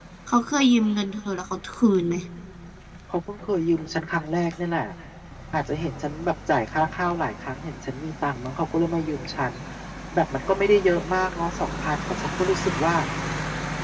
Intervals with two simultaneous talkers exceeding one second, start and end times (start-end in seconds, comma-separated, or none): none